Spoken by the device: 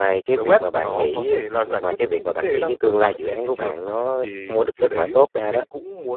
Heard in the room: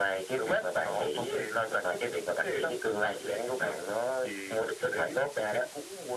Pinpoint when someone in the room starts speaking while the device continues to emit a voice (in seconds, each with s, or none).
none